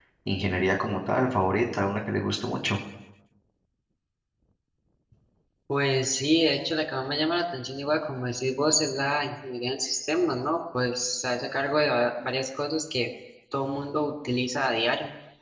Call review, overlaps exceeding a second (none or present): none